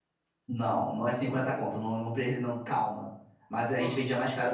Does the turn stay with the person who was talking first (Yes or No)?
Yes